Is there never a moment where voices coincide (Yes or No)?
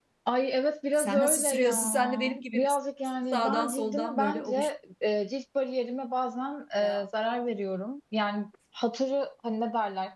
No